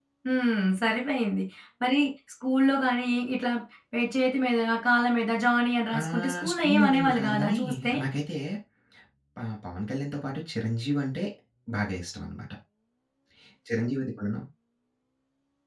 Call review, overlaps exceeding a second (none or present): present